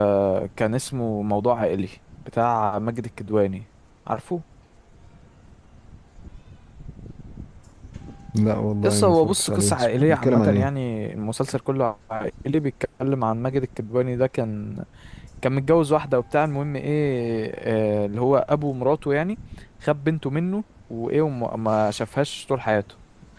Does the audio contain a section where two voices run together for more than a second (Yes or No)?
Yes